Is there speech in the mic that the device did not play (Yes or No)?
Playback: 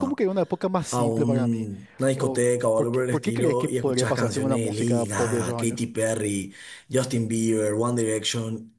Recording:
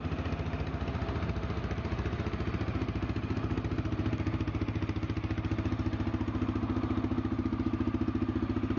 No